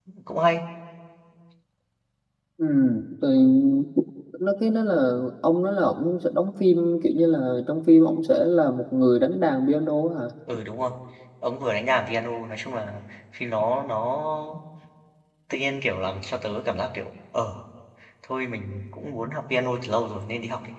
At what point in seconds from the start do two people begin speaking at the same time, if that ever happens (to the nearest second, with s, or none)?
none